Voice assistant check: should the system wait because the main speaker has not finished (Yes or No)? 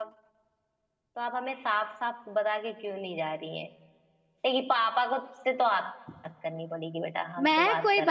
No